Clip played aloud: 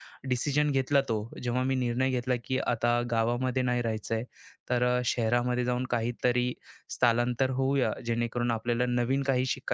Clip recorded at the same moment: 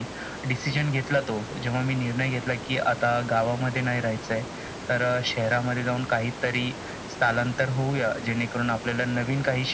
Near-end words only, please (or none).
none